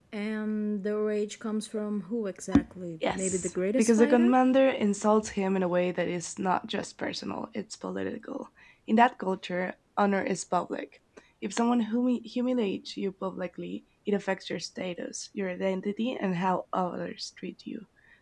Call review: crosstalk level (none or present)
present